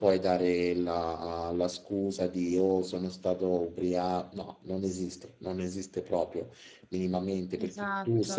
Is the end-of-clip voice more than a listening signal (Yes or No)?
No